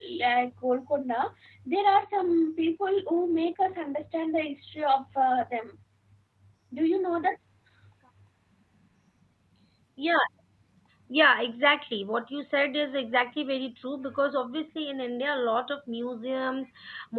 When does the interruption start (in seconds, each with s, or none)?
none